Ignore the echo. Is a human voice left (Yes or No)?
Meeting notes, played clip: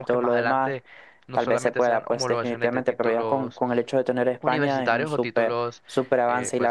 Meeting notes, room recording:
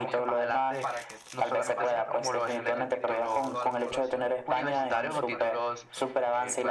Yes